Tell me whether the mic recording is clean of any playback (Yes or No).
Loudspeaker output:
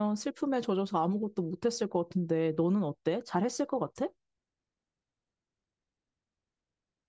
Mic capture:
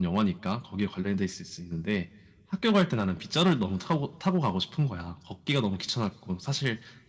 Yes